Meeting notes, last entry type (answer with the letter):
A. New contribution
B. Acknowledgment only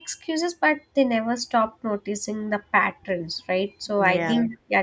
B